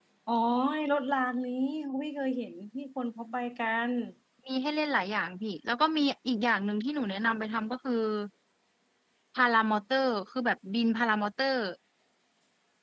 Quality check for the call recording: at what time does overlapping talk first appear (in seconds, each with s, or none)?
none